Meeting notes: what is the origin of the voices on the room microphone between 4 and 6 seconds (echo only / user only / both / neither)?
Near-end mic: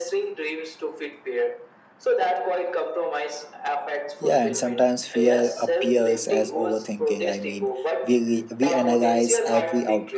both